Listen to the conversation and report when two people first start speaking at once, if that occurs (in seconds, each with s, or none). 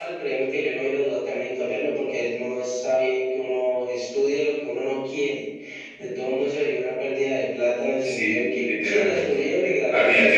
8.0 s